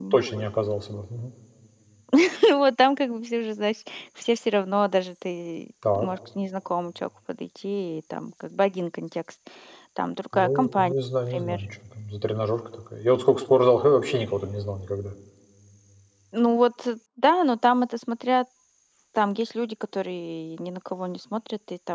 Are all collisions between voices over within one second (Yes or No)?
Yes